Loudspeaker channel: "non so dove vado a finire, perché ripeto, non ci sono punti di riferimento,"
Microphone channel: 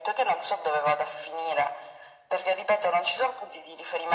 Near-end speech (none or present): none